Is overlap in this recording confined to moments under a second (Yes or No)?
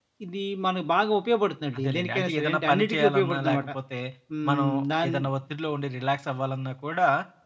No